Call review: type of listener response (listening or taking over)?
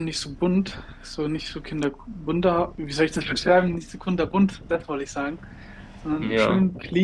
listening